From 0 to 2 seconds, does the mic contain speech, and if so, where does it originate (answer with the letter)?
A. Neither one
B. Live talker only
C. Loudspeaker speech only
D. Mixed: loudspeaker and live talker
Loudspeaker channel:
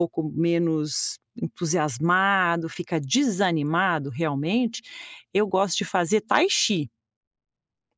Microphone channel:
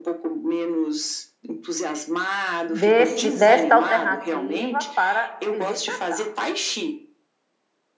C